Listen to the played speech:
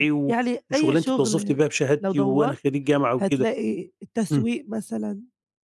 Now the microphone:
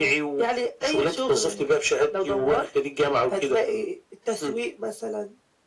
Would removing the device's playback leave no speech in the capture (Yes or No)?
Yes